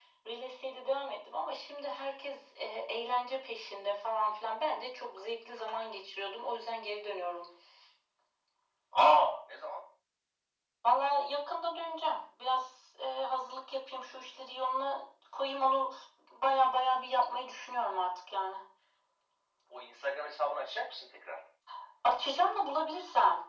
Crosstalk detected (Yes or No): No